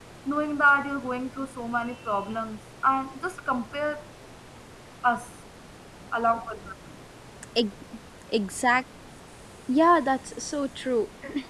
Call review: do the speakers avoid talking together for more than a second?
Yes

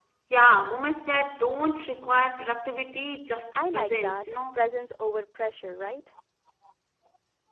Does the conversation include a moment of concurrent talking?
Yes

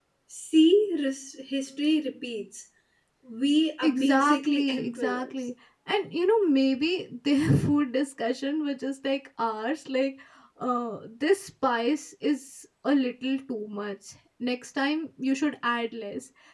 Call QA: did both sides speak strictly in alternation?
No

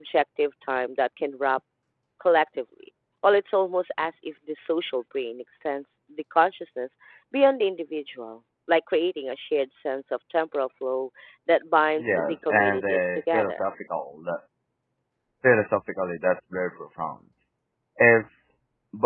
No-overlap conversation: No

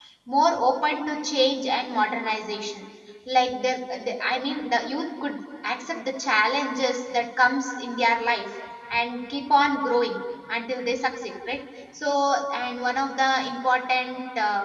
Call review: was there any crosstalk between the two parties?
No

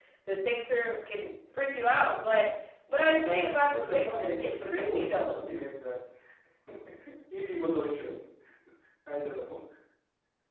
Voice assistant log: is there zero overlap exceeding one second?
No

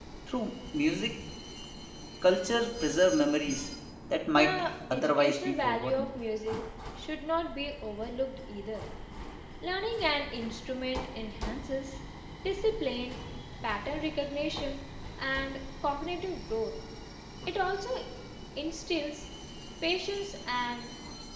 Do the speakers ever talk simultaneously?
Yes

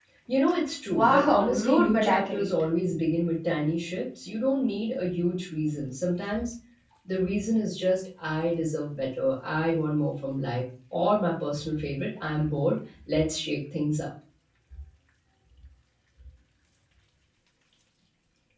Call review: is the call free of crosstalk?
No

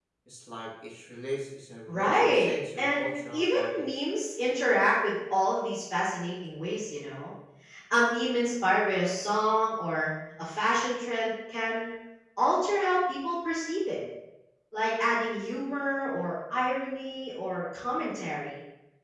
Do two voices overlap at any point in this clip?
Yes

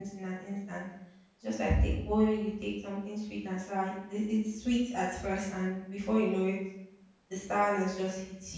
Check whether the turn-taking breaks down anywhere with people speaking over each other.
No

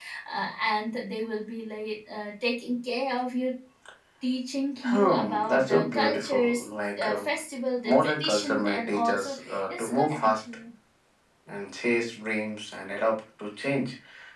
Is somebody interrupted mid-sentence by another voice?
Yes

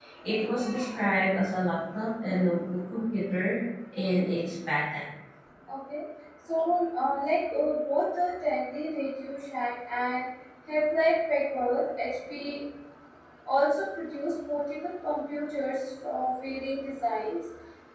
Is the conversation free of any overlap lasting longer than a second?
Yes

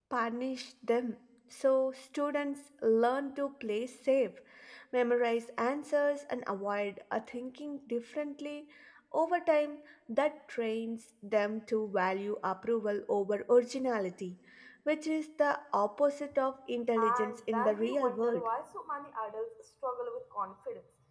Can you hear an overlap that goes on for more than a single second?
Yes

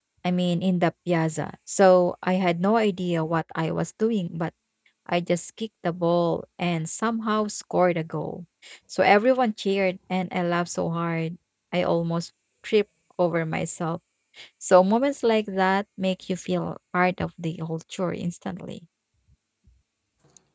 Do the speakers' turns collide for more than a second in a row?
No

